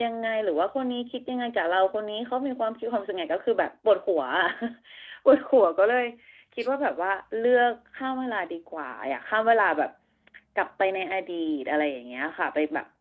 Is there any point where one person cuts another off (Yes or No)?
No